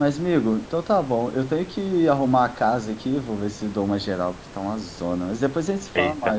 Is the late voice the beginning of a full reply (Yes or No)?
Yes